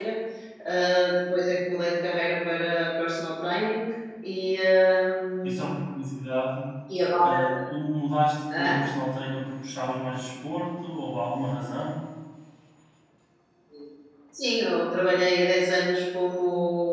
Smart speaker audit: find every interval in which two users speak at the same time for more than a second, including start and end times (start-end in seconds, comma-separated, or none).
none